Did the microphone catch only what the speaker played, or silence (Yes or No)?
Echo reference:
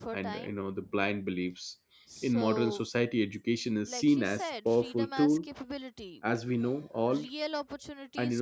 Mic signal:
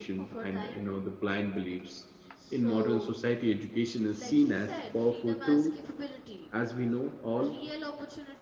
Yes